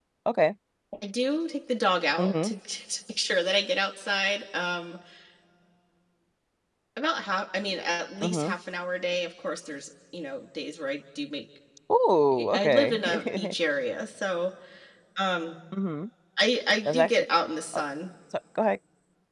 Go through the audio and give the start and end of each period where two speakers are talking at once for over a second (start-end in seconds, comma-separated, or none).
12.3-13.5